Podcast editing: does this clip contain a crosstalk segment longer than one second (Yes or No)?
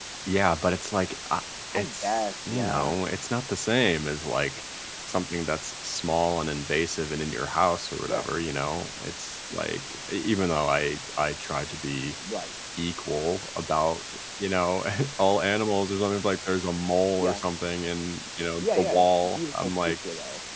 Yes